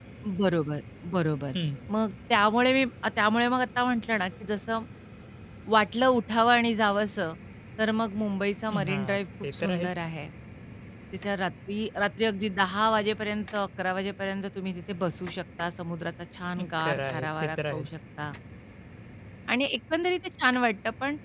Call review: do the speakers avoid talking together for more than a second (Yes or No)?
No